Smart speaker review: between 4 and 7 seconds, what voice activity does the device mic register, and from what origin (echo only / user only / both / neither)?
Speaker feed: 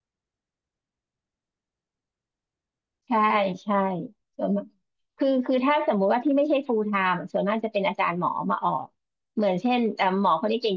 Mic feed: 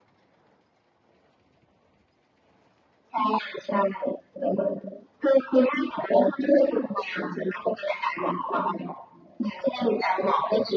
echo only